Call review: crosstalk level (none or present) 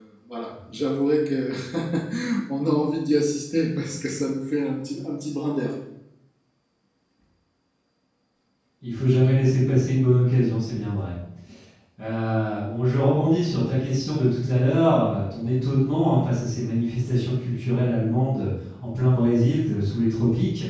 none